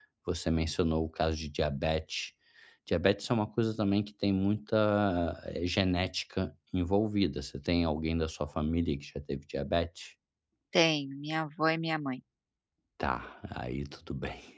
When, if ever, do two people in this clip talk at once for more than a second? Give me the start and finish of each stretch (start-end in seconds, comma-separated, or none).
none